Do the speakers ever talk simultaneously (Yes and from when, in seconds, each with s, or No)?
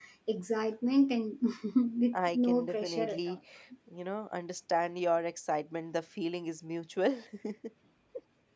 Yes, from 2.1 s